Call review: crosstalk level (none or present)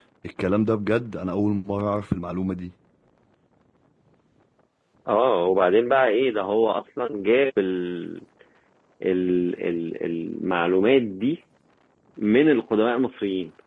none